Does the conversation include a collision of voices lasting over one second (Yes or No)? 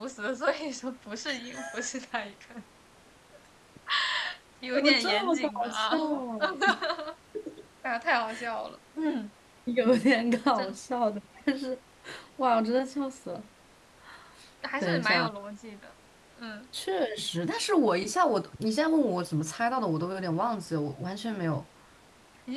Yes